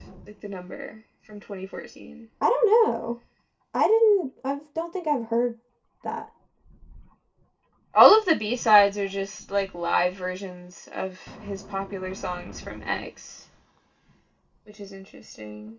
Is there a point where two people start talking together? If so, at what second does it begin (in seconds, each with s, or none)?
none